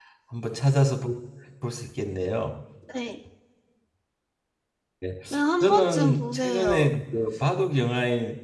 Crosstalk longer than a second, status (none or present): present